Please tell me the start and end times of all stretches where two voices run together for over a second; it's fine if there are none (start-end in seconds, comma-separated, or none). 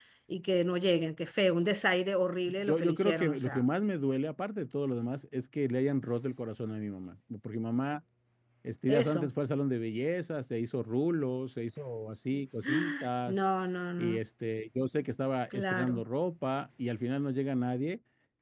2.5-3.7